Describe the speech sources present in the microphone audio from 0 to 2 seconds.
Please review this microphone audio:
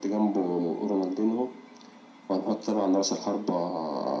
echo only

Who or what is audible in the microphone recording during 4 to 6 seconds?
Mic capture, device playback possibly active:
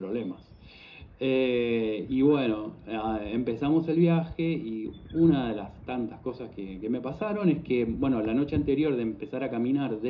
echo only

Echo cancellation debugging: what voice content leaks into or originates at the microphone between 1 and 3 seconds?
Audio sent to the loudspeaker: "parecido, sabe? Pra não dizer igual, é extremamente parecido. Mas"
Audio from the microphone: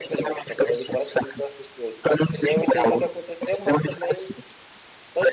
both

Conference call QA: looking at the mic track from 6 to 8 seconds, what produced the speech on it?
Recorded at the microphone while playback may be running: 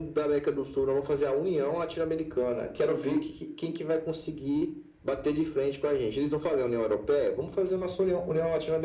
echo only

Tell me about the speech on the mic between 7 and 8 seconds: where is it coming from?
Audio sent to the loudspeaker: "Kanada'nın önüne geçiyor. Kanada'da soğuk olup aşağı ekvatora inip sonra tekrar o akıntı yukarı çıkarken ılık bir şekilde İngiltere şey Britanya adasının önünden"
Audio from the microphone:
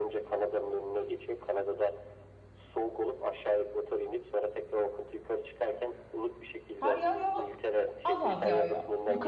both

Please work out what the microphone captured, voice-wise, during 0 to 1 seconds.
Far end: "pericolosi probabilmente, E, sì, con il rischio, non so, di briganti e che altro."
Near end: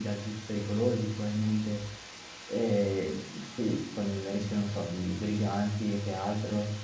echo only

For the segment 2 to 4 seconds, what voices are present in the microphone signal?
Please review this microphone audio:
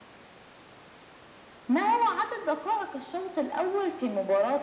echo only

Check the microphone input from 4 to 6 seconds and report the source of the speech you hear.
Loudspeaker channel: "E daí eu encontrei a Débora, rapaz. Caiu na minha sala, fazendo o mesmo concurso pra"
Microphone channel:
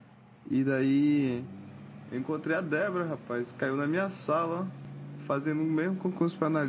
echo only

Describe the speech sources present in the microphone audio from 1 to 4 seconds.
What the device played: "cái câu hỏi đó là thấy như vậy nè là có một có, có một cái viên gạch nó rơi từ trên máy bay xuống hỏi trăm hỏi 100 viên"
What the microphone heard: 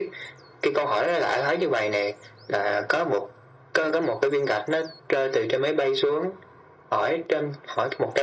echo only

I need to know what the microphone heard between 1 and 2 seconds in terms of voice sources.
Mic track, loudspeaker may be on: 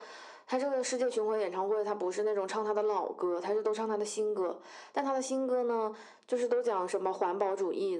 echo only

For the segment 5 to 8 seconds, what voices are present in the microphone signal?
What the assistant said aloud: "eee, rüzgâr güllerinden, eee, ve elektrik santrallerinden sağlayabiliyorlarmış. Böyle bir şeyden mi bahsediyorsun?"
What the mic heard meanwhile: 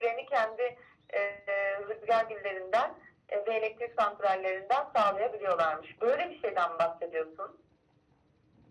echo only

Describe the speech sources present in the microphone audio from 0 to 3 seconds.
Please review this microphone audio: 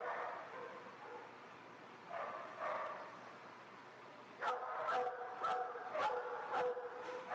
neither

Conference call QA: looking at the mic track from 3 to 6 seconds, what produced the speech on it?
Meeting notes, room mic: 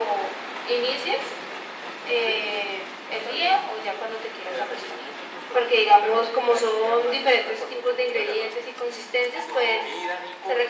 echo only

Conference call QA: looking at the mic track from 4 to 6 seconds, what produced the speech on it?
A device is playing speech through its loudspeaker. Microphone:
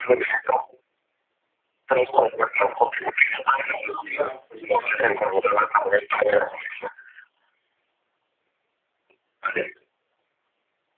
both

